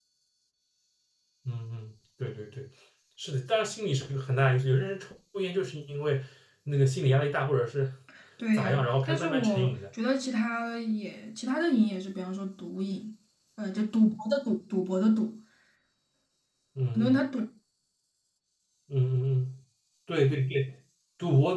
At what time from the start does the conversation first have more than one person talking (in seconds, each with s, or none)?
8.5 s